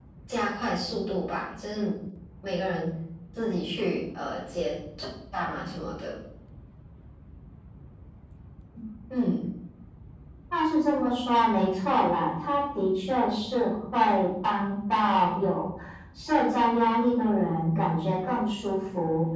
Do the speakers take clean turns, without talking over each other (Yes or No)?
Yes